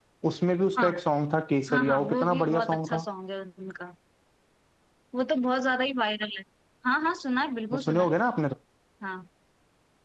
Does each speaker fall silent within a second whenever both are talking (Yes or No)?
No